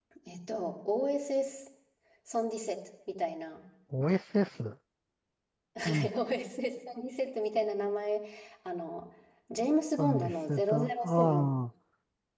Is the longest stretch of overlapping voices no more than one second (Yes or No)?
No